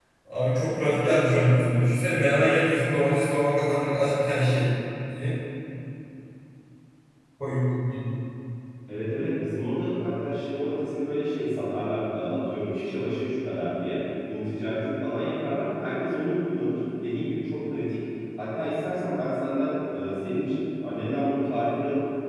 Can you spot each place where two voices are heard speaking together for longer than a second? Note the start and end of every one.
none

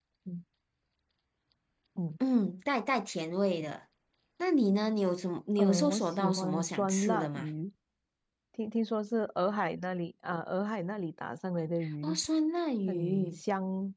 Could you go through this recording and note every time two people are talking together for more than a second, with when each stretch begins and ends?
5.6-7.5

